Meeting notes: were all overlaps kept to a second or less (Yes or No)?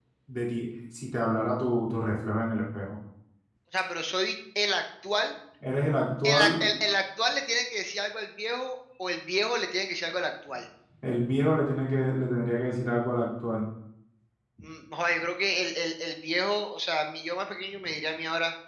Yes